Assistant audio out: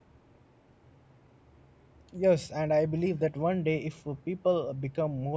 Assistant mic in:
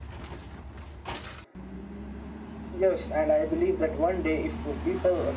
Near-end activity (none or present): none